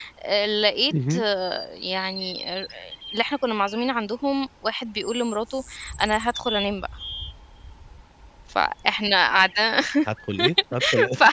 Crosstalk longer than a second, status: none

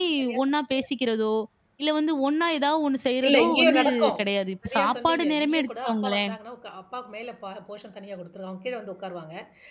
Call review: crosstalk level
present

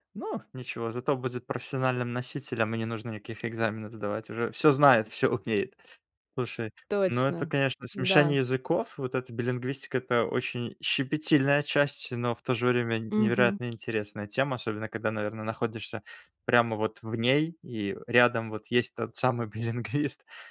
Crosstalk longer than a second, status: none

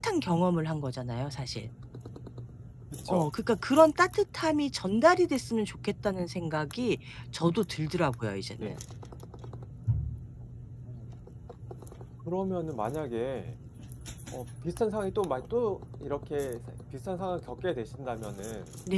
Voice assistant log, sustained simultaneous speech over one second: none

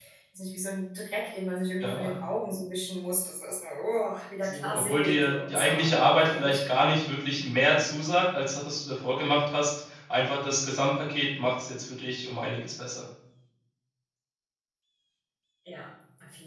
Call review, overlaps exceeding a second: present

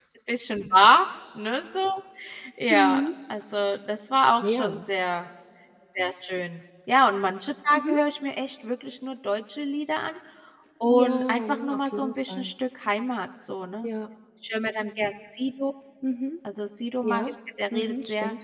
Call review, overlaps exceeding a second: present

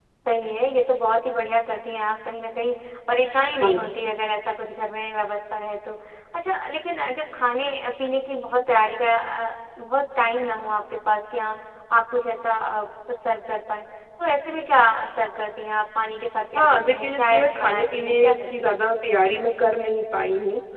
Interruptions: present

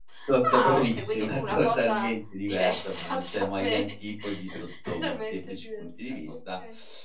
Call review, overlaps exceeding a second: present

